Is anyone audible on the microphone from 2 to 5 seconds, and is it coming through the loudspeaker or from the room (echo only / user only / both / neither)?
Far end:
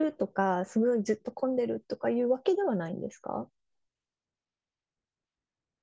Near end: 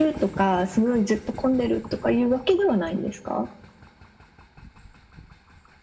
echo only